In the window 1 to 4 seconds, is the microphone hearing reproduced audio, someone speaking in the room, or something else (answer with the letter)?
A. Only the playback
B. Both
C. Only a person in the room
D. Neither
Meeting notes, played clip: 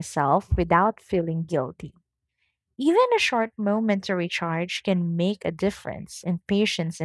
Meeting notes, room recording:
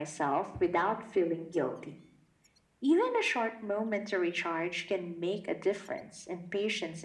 A